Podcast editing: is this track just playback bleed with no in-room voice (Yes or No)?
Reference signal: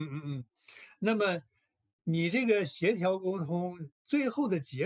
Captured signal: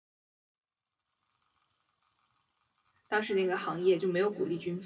No